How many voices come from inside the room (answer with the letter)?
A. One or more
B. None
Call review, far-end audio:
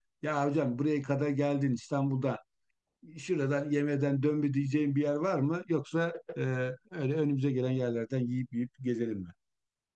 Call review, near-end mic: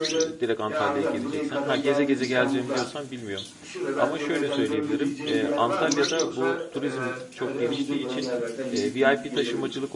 A